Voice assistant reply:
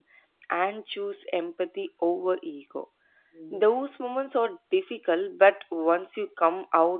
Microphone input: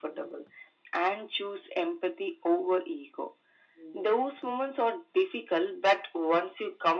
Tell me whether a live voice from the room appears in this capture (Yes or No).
No